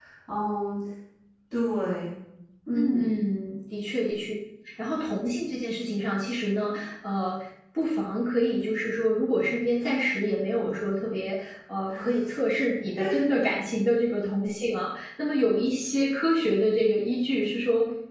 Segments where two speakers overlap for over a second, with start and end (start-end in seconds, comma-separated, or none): none